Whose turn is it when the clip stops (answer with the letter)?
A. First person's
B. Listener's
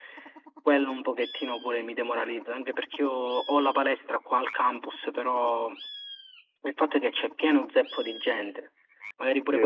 B